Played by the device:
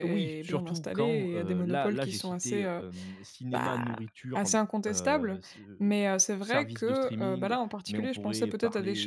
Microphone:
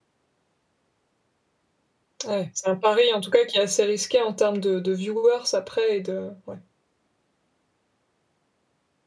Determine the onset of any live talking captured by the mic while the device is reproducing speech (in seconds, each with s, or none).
2.2 s